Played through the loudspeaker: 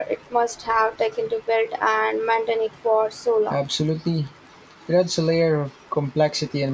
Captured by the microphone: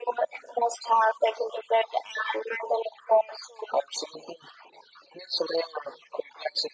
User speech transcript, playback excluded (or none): none